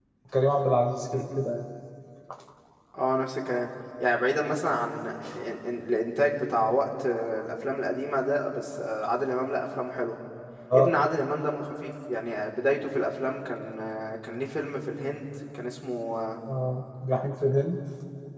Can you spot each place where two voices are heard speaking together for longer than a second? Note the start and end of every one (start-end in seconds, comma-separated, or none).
none